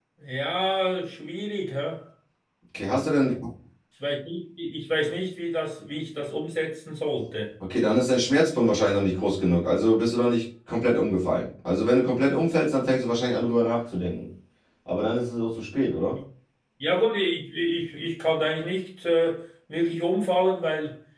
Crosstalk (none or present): none